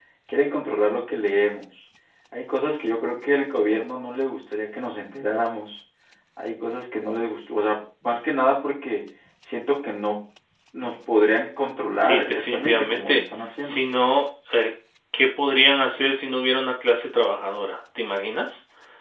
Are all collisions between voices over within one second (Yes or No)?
No